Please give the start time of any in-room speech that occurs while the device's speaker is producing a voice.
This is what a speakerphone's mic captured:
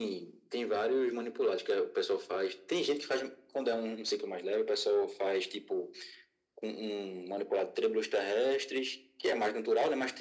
none

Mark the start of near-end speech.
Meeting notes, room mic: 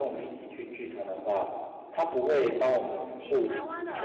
3.1 s

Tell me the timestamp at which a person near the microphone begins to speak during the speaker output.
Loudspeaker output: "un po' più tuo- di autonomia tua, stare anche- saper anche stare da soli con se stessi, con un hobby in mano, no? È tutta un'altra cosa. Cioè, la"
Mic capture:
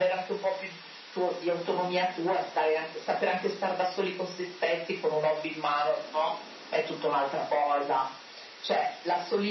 none

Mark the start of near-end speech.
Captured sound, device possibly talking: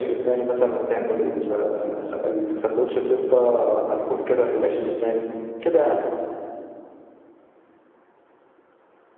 1.0 s

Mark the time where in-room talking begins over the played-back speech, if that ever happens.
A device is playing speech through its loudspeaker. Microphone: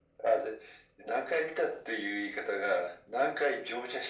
none

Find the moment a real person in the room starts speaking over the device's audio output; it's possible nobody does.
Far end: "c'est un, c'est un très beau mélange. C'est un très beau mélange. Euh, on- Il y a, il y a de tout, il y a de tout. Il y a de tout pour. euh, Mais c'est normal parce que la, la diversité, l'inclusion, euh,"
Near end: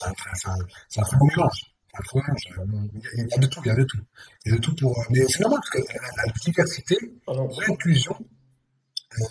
7.2 s

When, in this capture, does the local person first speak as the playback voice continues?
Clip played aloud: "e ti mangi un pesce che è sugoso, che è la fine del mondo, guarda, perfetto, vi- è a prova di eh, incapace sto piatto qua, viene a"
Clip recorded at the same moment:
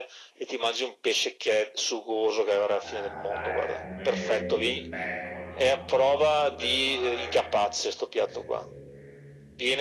2.8 s

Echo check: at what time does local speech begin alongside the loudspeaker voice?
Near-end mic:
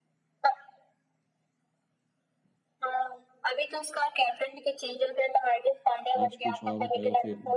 6.2 s

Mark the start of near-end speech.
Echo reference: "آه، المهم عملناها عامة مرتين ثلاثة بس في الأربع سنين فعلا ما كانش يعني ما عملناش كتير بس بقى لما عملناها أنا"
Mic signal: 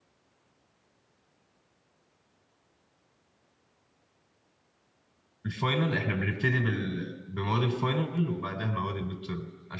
5.5 s

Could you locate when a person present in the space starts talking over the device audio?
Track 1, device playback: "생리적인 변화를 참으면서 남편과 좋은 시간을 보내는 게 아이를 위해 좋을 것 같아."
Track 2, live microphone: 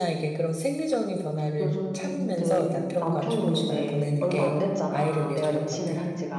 1.6 s

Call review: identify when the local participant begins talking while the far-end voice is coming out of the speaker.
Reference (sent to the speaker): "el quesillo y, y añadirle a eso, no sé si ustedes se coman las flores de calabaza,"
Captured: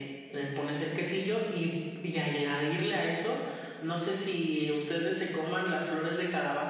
none

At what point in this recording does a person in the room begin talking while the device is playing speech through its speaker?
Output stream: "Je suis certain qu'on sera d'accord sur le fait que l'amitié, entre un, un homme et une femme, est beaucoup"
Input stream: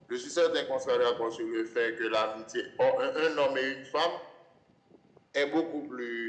none

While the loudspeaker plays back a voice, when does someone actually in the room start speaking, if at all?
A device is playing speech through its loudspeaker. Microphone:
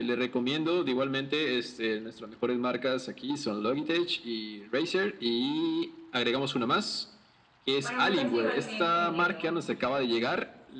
7.8 s

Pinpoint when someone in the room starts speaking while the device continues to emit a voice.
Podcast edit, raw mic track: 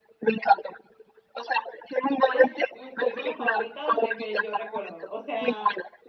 2.3 s

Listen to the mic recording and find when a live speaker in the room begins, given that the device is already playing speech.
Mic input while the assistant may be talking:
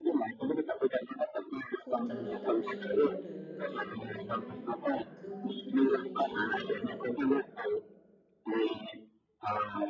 1.8 s

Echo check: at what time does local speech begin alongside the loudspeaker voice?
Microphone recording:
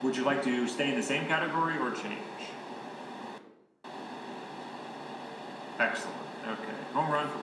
none

